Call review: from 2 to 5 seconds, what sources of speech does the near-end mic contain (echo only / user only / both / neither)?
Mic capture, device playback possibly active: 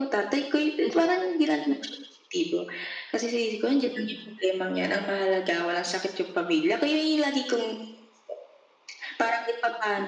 echo only